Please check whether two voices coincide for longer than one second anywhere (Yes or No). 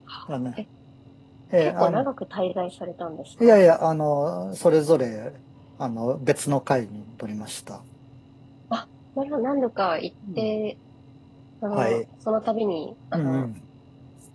No